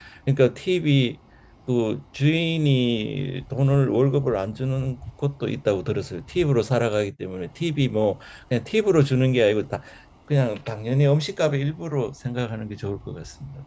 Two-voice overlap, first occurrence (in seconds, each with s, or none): none